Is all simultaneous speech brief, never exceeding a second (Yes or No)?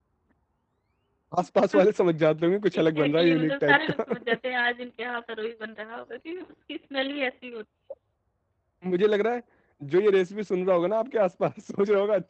No